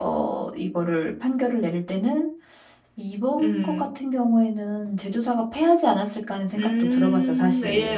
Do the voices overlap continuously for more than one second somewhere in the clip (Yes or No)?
Yes